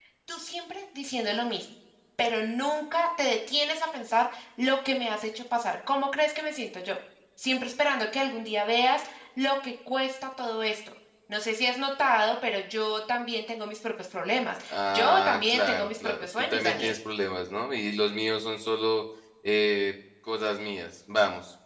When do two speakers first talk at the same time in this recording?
15 s

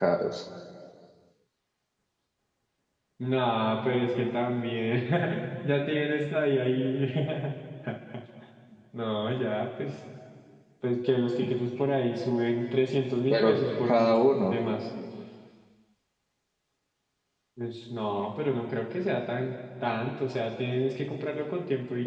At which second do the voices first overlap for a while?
13 s

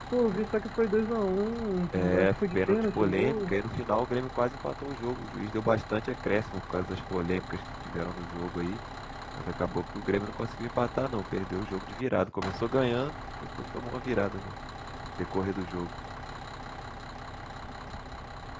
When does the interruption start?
2 s

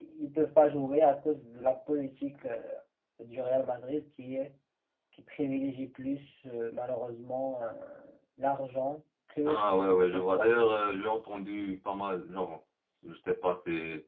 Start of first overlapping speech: 9 s

